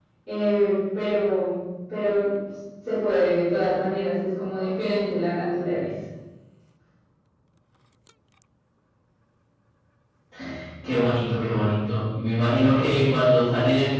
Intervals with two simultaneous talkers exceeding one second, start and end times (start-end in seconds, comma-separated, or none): none